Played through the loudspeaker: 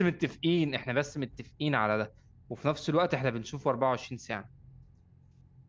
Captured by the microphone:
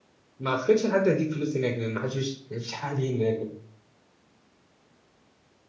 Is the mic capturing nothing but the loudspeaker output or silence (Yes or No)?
No